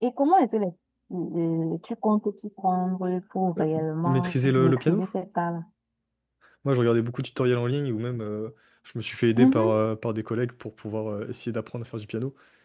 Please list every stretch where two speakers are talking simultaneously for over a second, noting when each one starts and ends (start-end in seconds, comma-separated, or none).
3.6-5.0